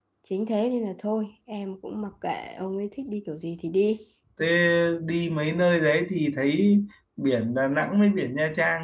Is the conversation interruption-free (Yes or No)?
Yes